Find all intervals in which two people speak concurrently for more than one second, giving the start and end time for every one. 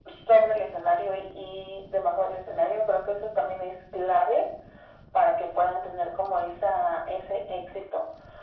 none

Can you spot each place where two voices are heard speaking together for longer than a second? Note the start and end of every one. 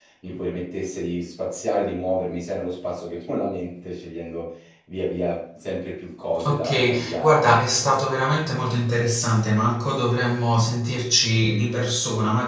6.4-7.8

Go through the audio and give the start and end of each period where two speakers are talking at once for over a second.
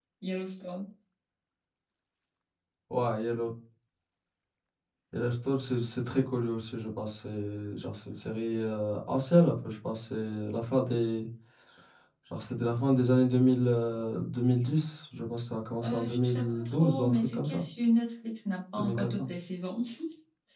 15.8-17.6

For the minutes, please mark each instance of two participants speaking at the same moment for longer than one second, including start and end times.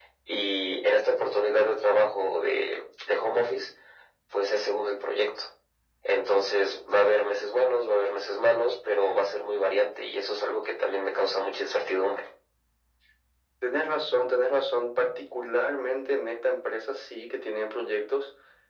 none

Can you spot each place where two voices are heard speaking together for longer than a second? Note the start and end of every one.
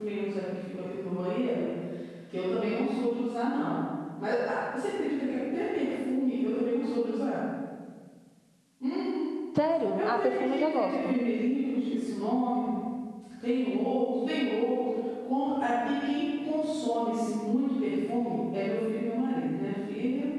9.9-11.1

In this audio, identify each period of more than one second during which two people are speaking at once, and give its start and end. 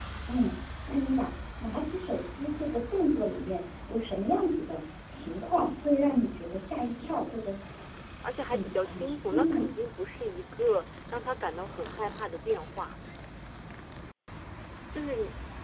8.4-9.6

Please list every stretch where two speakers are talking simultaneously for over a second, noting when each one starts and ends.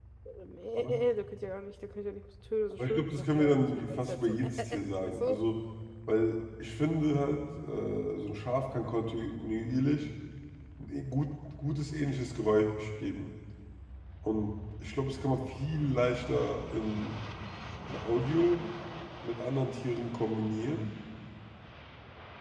2.7-5.4

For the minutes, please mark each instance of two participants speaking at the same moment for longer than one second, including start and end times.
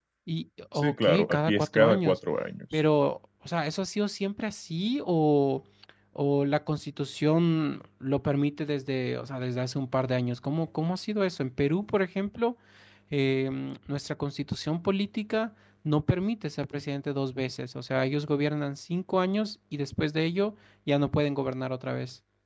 0.7-2.2

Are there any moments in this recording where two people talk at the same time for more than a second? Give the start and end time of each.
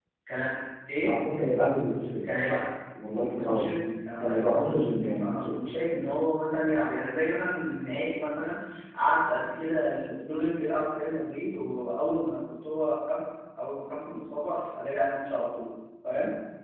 4.2-5.6

